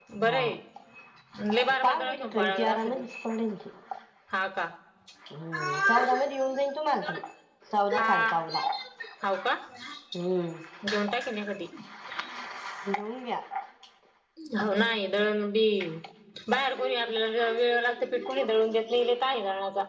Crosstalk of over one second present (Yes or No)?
Yes